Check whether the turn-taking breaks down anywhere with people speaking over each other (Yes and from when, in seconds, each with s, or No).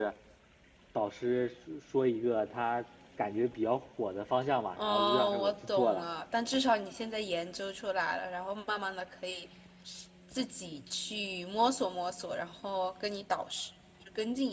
Yes, from 4.8 s